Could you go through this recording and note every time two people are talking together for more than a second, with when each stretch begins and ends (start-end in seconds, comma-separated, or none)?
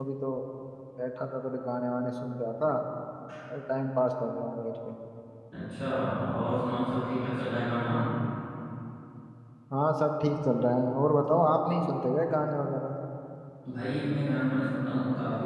none